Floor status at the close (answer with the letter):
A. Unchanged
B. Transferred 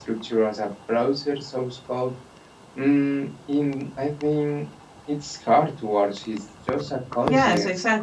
B